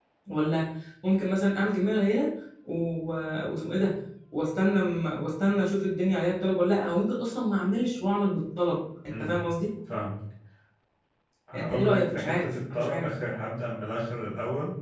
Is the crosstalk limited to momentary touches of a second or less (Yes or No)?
No